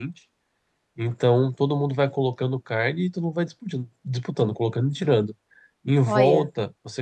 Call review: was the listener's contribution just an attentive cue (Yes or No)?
Yes